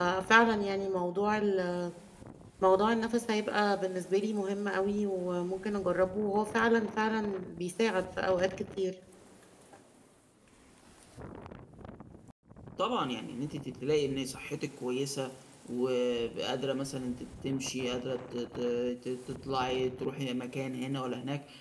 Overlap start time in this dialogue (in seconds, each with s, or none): none